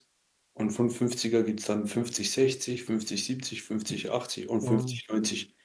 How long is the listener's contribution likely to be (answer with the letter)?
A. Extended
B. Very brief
B